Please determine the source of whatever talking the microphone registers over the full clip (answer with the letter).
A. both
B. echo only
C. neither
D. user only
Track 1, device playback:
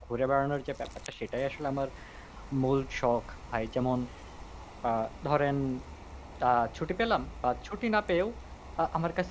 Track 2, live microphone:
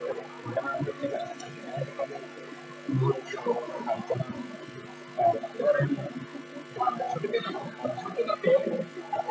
B